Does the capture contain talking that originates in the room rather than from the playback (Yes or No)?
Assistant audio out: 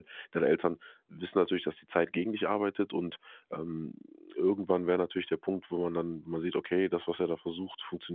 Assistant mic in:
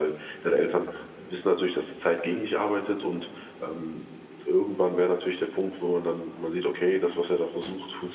No